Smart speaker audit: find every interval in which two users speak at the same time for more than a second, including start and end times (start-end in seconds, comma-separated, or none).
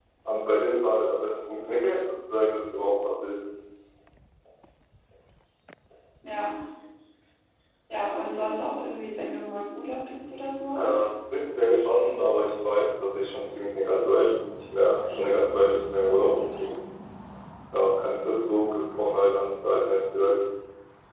none